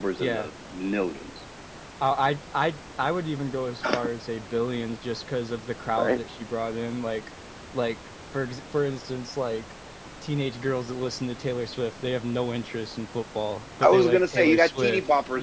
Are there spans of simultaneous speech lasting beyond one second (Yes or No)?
Yes